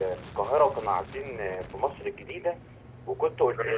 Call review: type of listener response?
listening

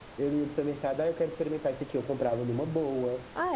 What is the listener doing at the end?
listening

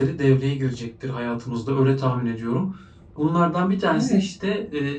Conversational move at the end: listening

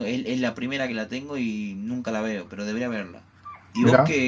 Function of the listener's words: listening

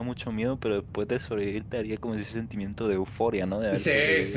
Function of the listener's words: taking over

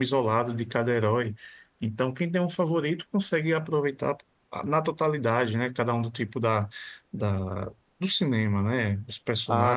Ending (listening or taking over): taking over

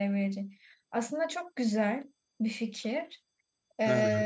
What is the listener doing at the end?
listening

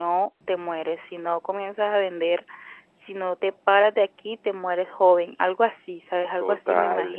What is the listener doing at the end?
taking over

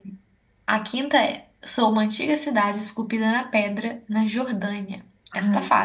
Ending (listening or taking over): taking over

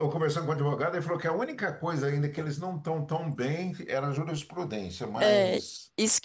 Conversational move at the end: taking over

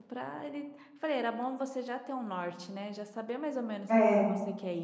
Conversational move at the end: listening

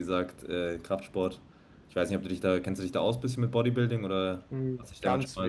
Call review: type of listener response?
taking over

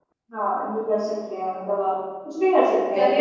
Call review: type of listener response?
taking over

